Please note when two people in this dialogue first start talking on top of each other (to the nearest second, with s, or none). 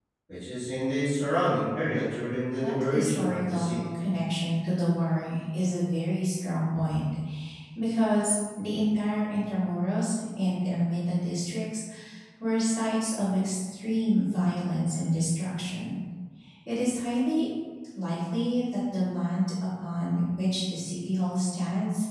3 s